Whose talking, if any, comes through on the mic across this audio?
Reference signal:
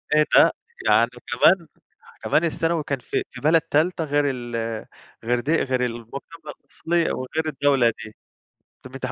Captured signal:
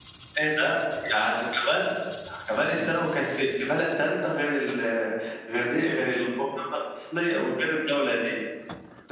echo only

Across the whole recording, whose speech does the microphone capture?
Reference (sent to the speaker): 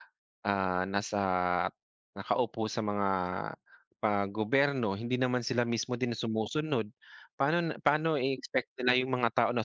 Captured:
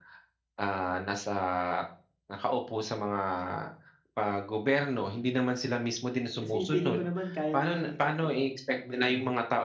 both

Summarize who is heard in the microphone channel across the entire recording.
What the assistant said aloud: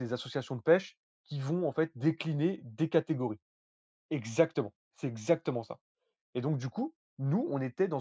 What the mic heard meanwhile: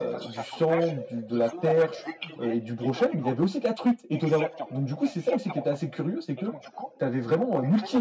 both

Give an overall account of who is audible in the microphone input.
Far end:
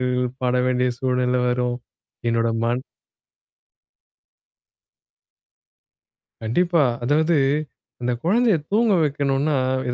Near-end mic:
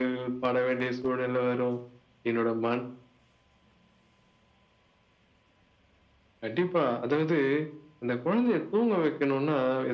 echo only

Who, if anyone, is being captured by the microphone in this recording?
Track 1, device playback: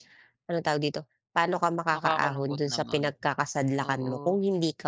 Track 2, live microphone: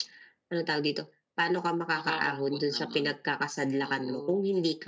echo only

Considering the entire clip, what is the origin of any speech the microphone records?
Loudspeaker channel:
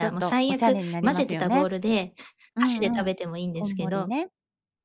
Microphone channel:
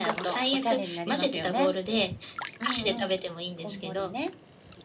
echo only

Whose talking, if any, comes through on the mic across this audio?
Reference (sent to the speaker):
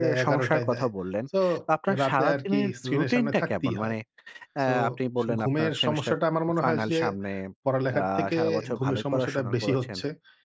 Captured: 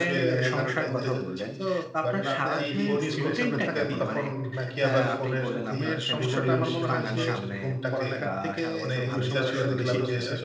both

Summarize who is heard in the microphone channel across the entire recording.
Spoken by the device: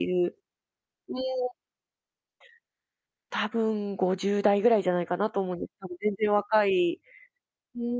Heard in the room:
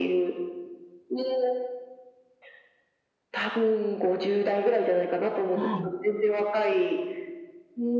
both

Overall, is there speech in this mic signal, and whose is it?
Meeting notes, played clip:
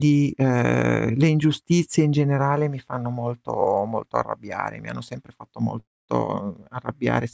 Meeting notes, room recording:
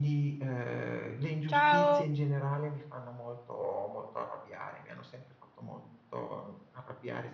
both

